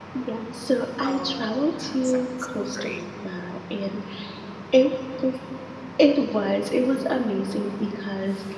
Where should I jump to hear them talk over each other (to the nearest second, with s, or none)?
1 s